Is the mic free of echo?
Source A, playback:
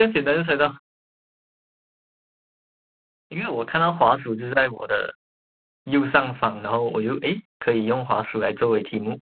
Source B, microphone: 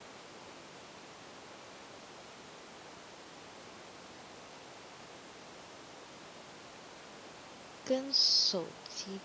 Yes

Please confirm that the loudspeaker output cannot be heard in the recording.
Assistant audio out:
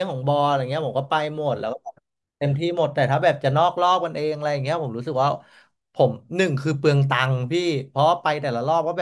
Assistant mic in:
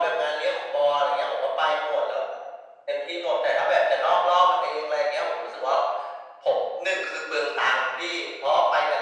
No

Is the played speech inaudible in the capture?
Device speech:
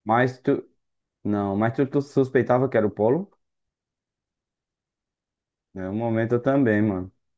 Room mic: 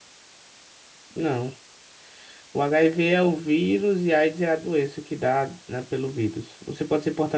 Yes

